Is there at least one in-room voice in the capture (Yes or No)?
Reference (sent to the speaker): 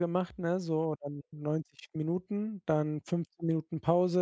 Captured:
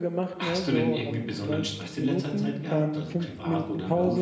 Yes